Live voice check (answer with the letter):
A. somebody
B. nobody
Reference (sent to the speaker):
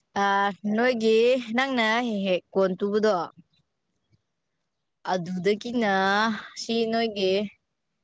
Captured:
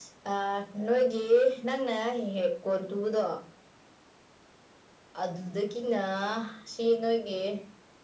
B